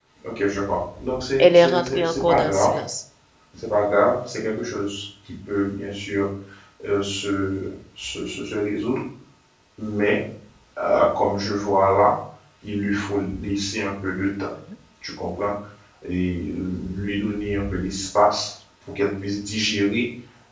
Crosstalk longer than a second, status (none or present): present